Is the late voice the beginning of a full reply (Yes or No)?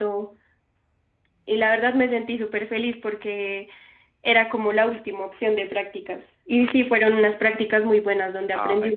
Yes